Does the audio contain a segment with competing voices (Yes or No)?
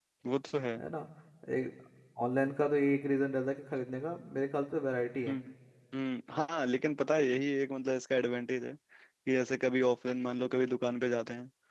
No